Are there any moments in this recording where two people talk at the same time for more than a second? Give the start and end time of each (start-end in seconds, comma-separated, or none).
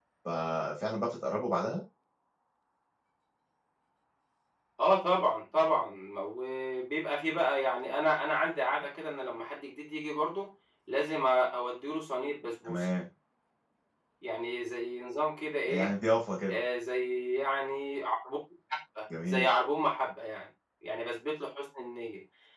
none